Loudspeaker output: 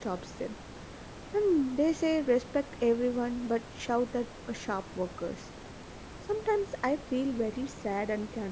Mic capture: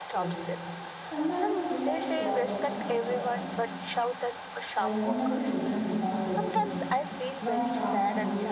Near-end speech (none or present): present